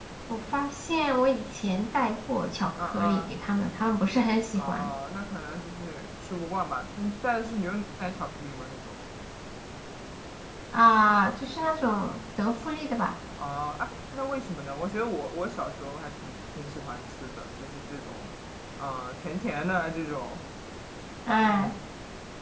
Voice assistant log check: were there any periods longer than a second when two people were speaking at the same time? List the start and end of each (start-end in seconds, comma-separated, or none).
none